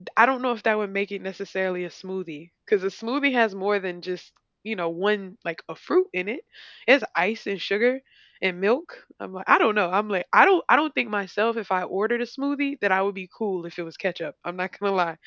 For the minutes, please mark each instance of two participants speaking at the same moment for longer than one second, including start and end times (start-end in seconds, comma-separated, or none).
none